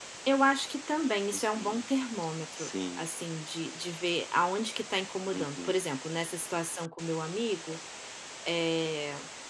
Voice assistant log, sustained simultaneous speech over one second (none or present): none